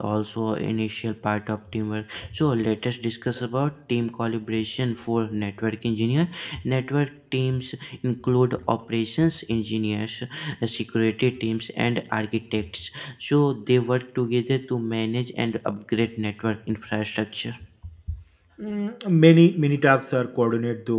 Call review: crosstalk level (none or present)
none